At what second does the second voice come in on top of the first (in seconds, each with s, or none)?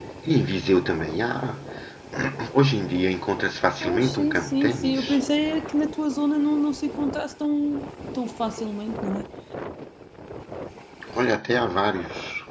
3.8 s